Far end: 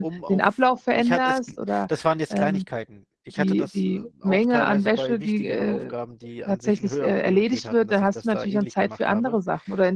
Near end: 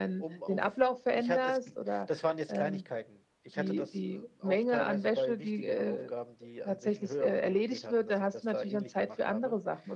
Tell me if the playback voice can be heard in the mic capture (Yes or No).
Yes